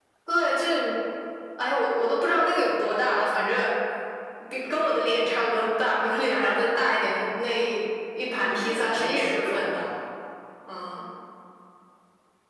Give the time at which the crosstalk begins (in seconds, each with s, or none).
8.2 s